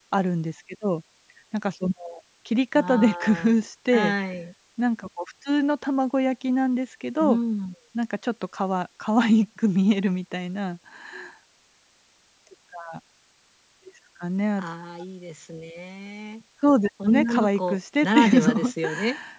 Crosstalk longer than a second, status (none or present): present